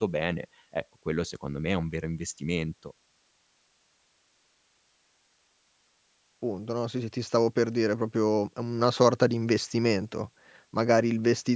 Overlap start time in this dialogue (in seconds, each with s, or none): none